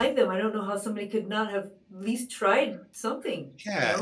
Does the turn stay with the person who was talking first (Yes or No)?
No